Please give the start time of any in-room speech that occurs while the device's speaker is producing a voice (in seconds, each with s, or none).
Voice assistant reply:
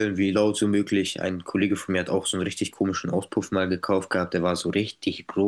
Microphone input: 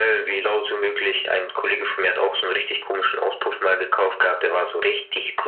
none